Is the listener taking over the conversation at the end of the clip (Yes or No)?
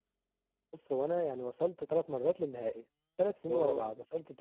No